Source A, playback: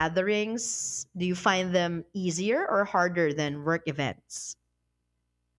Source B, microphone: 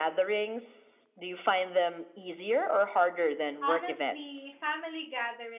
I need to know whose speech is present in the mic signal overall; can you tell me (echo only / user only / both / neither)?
both